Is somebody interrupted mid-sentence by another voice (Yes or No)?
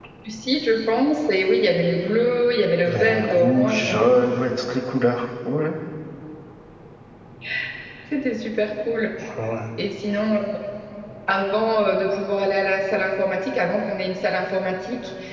Yes